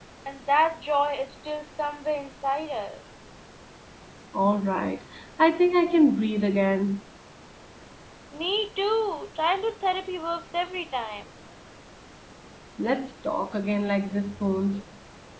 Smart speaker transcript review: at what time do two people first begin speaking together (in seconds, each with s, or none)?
none